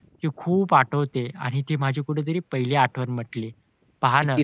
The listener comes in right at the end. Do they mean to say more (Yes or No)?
No